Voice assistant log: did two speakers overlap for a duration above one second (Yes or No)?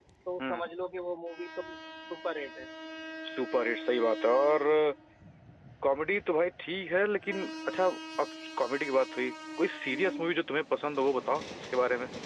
No